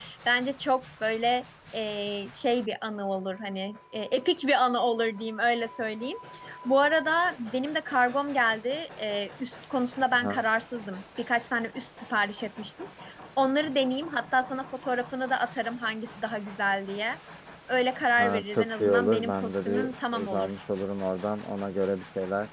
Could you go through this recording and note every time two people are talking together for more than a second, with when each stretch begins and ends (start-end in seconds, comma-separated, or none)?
18.2-20.5